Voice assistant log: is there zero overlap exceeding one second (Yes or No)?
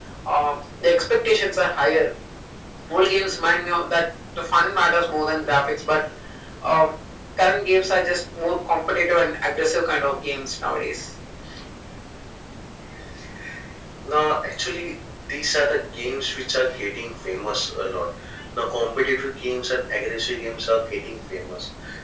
Yes